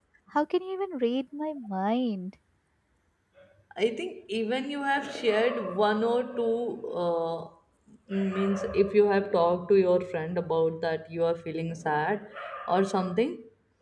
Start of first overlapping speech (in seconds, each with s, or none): none